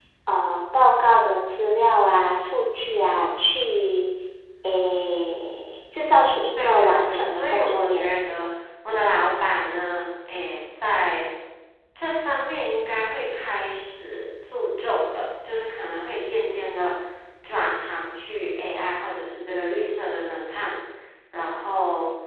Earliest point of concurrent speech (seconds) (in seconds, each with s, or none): 6.6 s